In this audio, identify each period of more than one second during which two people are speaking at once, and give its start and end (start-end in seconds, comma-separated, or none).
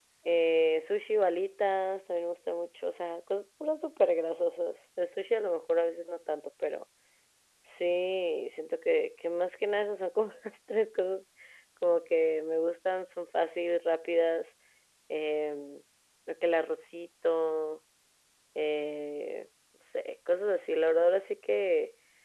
none